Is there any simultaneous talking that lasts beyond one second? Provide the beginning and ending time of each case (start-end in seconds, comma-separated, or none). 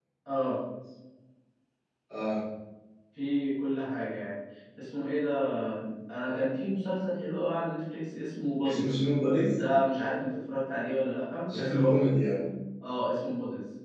none